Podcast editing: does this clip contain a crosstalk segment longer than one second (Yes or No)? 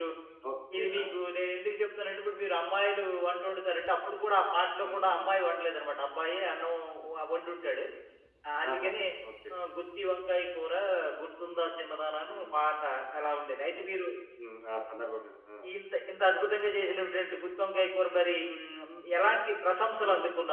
No